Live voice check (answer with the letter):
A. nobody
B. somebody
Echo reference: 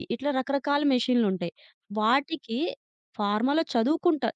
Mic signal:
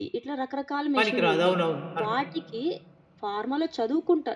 B